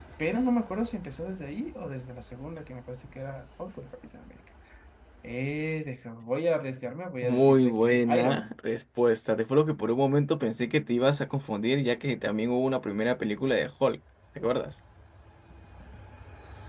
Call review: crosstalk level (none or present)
present